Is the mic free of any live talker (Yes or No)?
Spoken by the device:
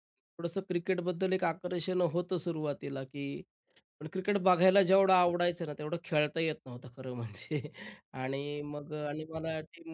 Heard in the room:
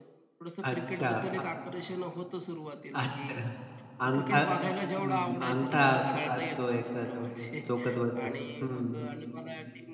No